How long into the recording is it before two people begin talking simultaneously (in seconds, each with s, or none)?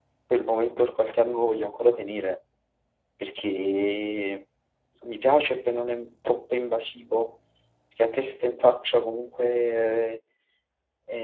none